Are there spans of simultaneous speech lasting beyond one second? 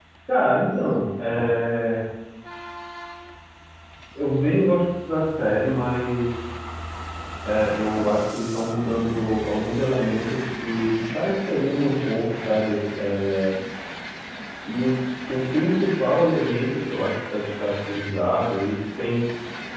No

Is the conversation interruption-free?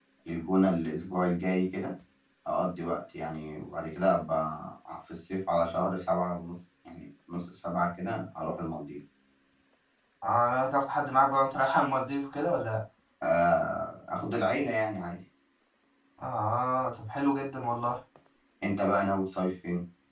Yes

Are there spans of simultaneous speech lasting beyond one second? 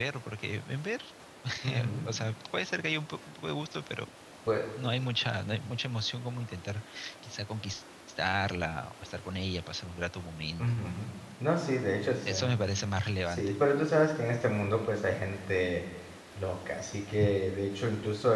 No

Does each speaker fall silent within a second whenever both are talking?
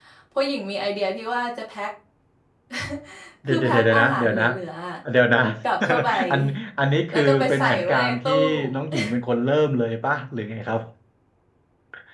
No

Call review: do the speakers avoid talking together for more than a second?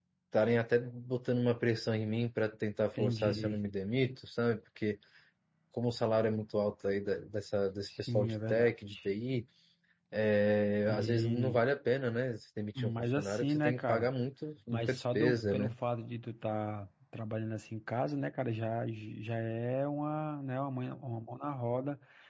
No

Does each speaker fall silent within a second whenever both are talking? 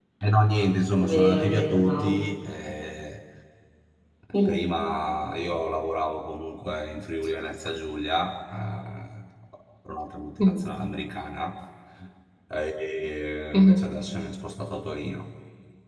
No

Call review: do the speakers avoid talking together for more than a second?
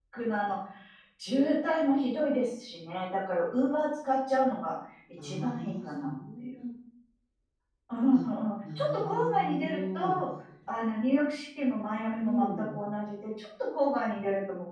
No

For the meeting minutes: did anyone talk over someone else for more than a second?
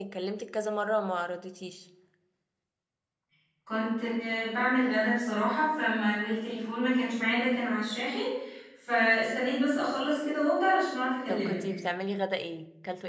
No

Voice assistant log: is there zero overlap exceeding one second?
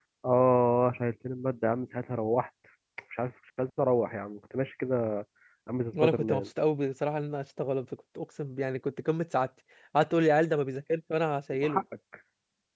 Yes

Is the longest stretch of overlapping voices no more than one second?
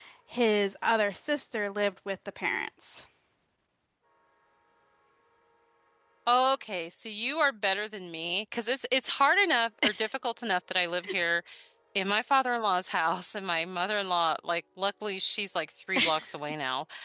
Yes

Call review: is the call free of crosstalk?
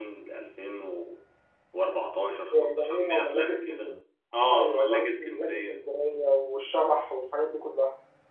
No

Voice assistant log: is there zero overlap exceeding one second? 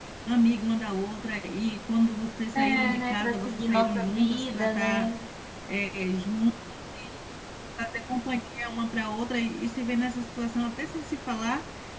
No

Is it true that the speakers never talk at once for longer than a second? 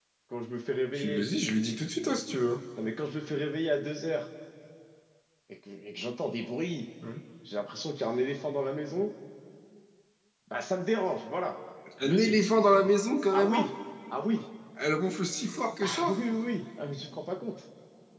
Yes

